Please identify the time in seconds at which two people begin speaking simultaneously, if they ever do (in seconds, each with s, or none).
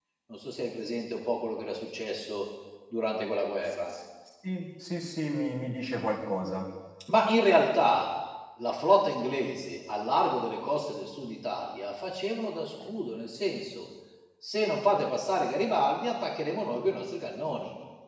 none